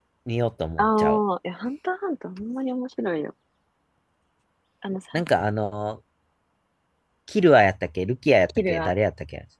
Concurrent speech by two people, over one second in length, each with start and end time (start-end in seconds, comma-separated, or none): none